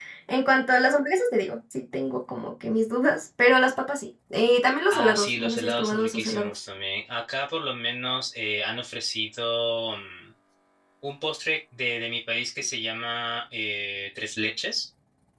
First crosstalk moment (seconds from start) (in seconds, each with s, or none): 4.9 s